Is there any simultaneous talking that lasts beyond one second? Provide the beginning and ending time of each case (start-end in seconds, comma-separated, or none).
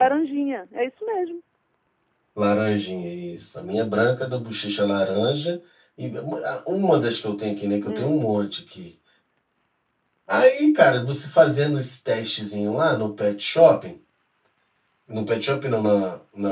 none